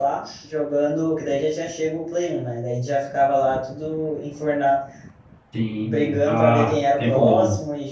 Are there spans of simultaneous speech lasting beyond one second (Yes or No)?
Yes